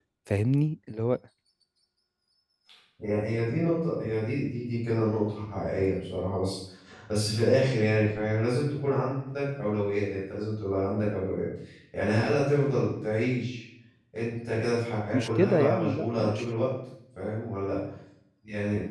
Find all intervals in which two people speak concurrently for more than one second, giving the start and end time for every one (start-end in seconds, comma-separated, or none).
15.1-16.4